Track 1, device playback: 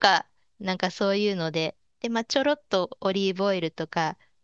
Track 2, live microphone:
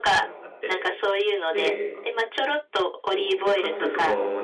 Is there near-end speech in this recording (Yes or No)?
Yes